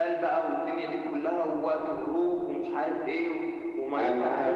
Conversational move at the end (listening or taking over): taking over